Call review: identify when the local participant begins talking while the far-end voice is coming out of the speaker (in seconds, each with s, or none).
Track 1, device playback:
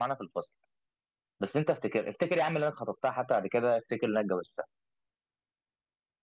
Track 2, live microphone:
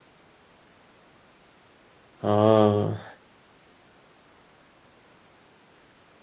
2.2 s